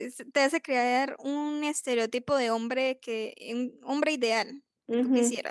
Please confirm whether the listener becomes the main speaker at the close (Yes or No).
Yes